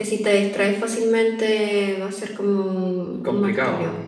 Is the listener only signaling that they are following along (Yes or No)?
No